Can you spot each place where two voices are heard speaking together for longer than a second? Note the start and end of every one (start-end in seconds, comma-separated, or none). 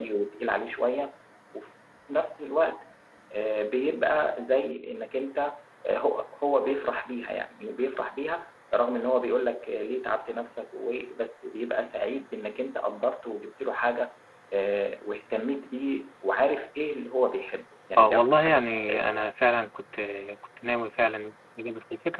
18.0-19.2